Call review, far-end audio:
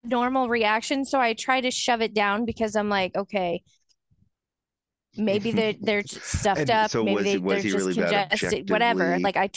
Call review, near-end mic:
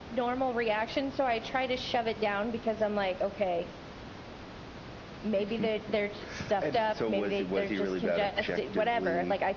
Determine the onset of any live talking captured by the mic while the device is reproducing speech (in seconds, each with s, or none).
none